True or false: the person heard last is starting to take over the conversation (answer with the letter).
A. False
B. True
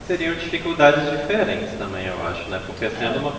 A